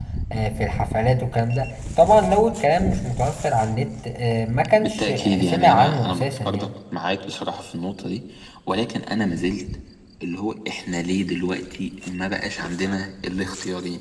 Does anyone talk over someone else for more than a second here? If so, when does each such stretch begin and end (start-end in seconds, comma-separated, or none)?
4.8-6.7